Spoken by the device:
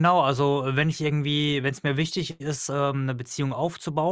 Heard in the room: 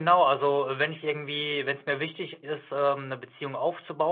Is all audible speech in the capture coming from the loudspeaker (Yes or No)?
Yes